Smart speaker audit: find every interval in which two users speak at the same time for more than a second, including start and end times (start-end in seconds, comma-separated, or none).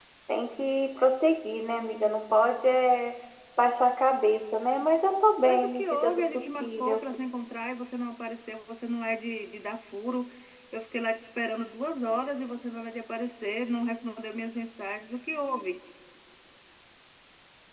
5.4-7.1